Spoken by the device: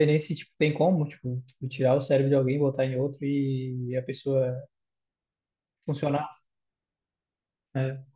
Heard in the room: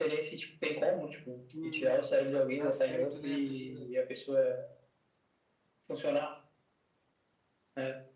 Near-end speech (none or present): present